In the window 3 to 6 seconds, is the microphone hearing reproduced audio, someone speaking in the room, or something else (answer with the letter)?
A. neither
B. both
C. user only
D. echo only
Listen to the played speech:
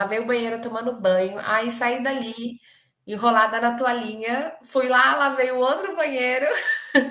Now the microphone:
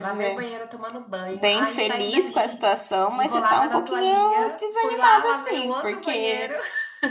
B